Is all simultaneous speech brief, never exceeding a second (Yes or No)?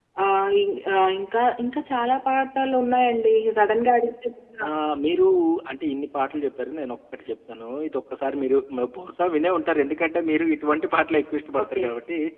Yes